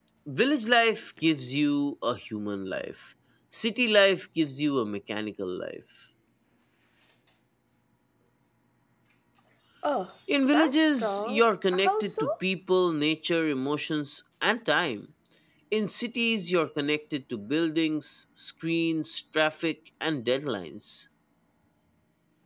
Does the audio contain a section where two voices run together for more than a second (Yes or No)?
Yes